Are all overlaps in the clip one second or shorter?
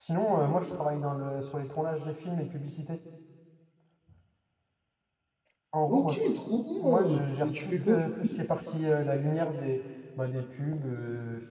No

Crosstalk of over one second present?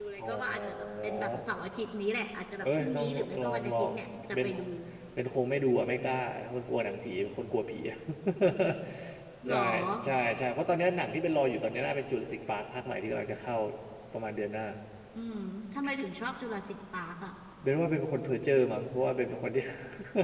Yes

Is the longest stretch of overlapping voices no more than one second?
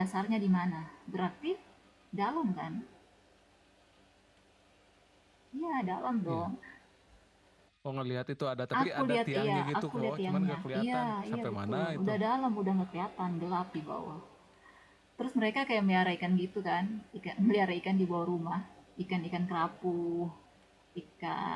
No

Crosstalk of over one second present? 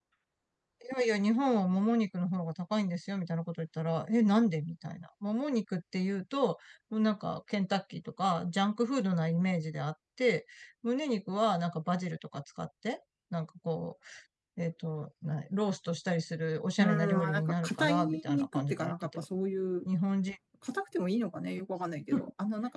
Yes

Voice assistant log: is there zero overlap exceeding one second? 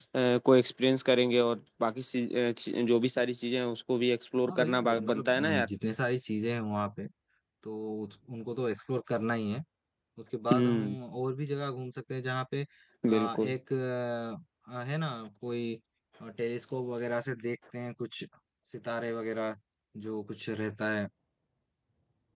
No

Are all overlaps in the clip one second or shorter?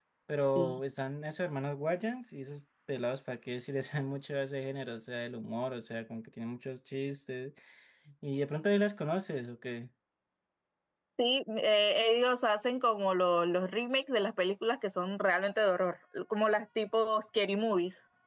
Yes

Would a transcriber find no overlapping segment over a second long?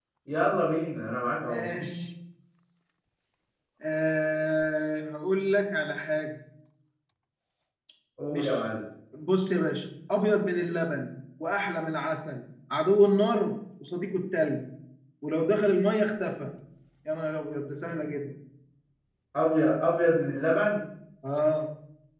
Yes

